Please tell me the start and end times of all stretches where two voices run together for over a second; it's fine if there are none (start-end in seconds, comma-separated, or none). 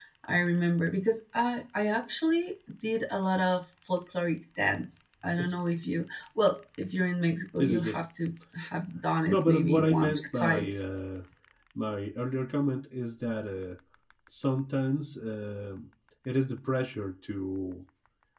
9.3-10.9